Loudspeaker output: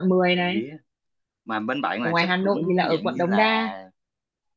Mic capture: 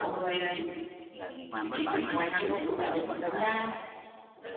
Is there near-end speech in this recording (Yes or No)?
Yes